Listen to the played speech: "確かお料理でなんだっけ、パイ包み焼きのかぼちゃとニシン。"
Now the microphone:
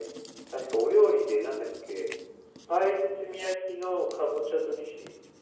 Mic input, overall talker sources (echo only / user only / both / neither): echo only